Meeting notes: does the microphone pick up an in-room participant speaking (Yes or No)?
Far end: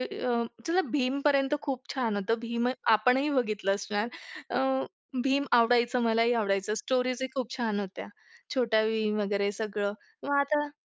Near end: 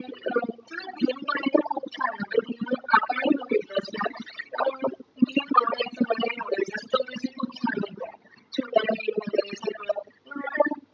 No